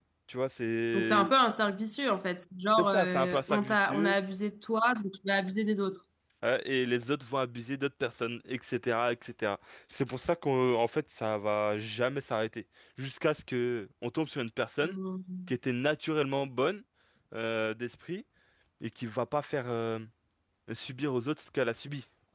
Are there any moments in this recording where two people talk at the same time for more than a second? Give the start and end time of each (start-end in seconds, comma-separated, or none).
2.8-4.2